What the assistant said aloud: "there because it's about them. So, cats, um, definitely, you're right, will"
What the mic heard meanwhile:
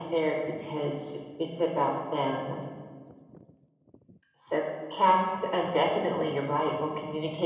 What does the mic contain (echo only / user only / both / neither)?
echo only